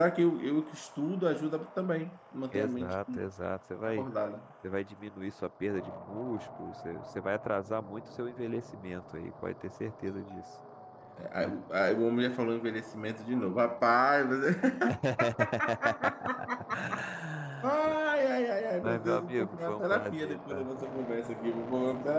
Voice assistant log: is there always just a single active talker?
No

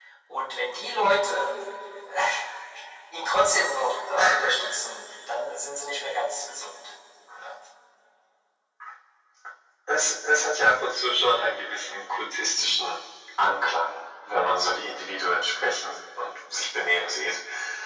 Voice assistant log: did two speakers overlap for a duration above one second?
No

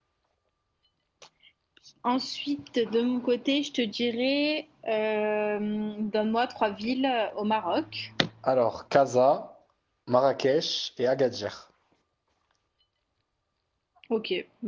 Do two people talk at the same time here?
No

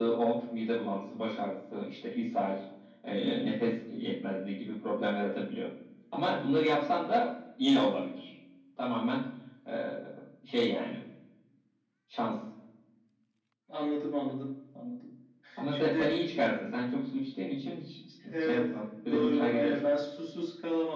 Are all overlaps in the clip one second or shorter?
No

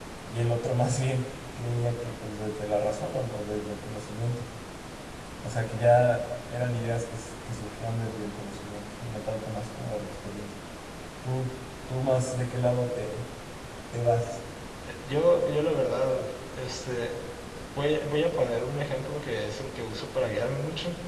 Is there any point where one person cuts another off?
No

